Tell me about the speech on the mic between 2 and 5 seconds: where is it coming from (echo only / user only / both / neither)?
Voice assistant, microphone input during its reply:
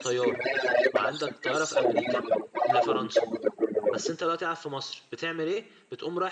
both